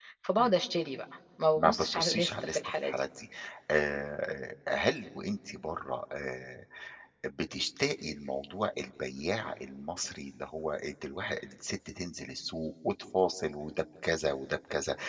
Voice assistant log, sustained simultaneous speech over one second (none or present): present